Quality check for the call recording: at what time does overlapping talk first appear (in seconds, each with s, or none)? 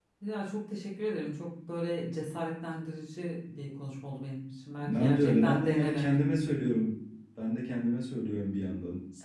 4.8 s